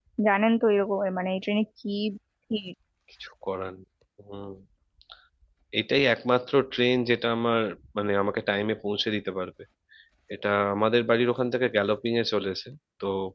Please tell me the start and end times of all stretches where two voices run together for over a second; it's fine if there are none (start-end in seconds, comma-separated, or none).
none